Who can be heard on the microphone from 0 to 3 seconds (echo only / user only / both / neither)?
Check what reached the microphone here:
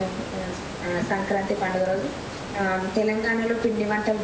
user only